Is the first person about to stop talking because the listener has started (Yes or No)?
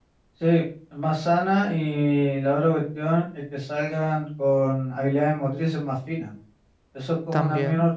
No